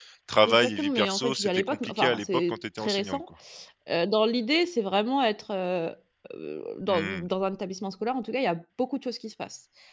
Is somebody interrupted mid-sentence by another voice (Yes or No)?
Yes